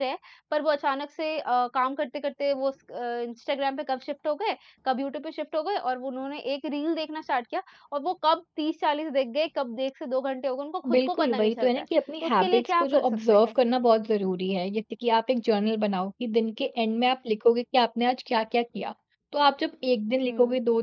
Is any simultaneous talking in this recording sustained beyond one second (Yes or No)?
Yes